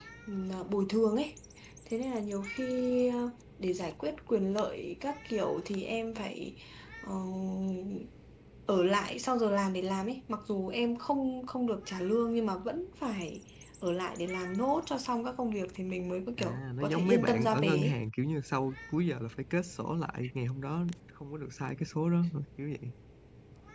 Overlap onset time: 16.4 s

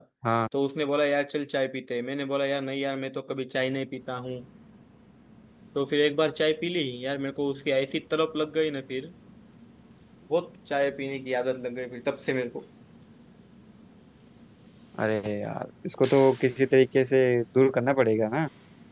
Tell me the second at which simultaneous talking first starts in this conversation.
none

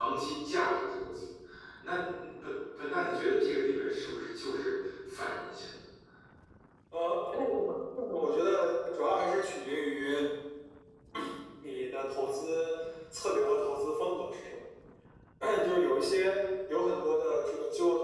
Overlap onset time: none

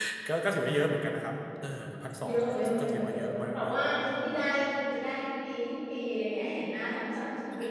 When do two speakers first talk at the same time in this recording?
2.2 s

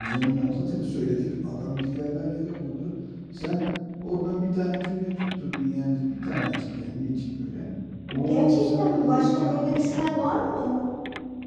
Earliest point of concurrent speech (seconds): 8.3 s

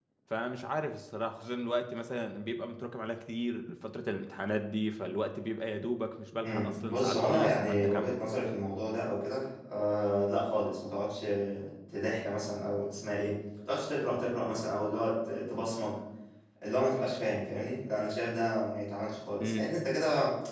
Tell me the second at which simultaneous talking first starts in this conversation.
6.4 s

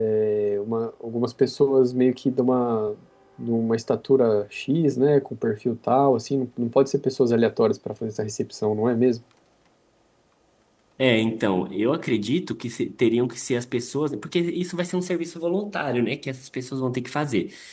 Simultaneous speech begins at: none

